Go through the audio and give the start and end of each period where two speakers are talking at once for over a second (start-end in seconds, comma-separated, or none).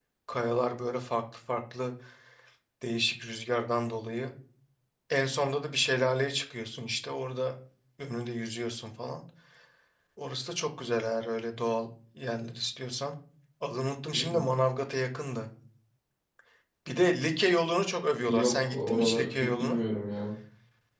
18.3-19.8